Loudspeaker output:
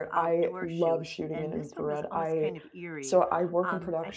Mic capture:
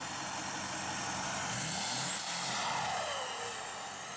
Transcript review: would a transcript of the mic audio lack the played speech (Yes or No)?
Yes